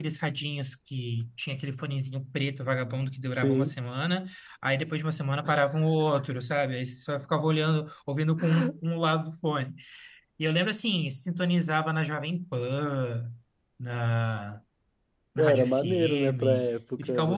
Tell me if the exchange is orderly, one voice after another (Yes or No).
No